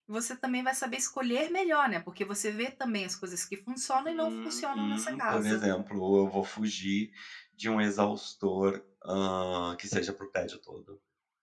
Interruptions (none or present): present